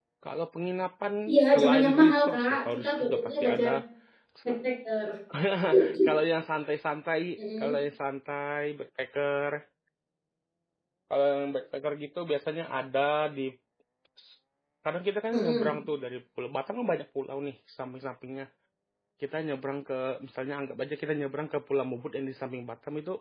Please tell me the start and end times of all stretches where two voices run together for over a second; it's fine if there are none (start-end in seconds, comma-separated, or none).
1.5-3.7